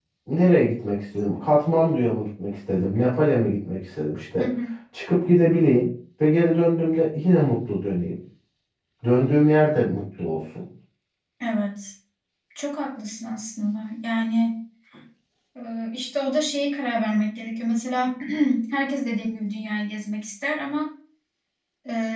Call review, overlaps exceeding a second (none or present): none